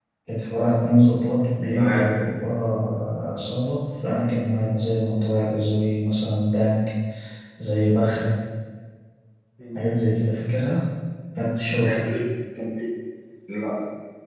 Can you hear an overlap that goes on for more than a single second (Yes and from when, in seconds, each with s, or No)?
No